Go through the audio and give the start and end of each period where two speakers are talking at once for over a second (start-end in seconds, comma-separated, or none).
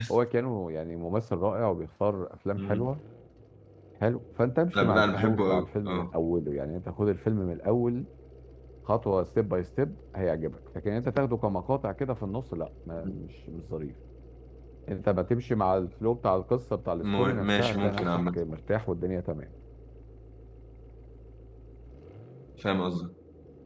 4.7-6.1, 17.0-18.4